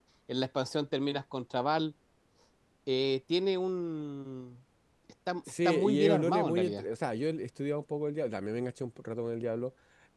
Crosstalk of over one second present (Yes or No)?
Yes